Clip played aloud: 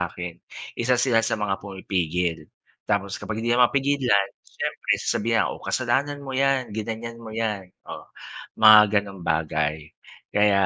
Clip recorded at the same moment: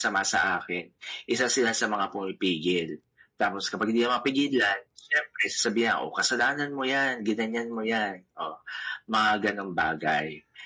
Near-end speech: none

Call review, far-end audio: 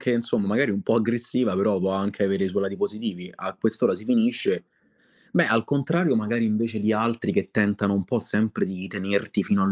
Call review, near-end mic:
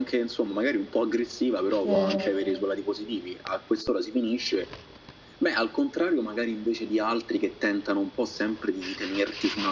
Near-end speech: present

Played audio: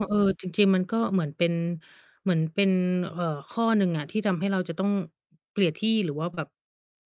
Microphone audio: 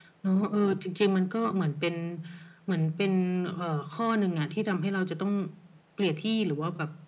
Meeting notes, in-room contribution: none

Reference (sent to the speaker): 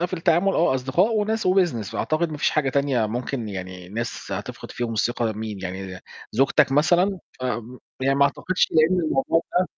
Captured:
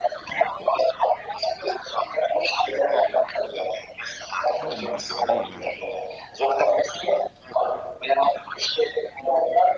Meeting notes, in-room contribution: present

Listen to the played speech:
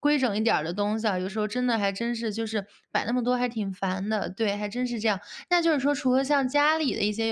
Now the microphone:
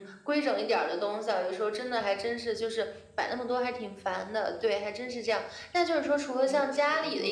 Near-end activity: present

